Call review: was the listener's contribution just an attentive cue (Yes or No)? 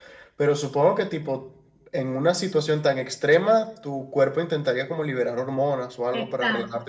No